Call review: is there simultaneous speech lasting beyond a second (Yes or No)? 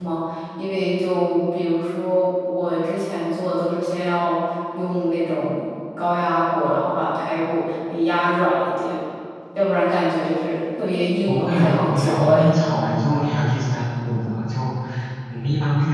Yes